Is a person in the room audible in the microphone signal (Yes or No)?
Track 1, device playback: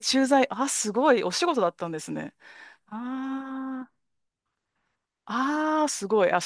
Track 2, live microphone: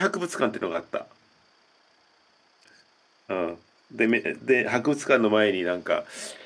Yes